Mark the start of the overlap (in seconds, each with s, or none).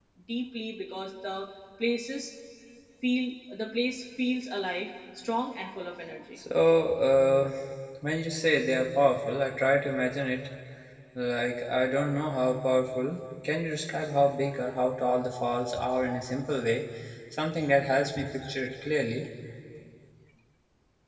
none